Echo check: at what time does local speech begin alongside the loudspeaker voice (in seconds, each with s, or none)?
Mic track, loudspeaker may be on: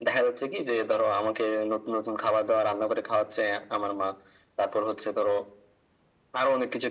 none